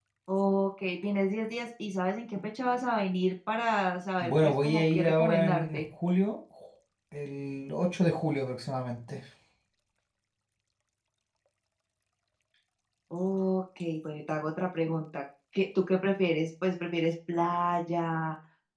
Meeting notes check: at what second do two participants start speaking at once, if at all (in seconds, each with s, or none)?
4.2 s